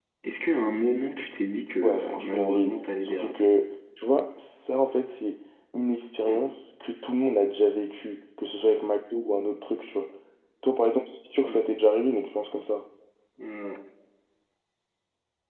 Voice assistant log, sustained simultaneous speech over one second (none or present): present